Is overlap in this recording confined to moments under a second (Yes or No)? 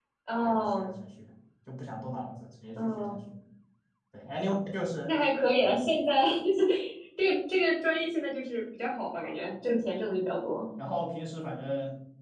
Yes